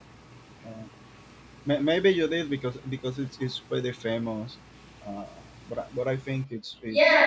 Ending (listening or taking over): taking over